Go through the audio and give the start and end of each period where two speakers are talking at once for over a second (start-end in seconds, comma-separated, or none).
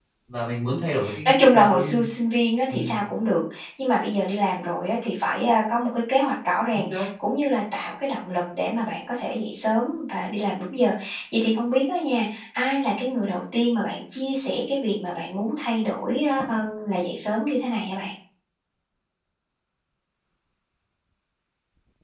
0.7-2.0